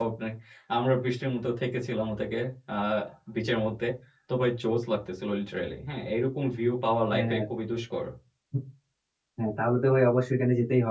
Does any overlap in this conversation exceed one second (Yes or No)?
No